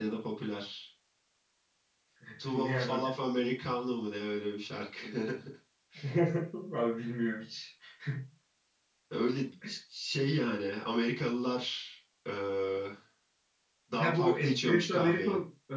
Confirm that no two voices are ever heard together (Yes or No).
No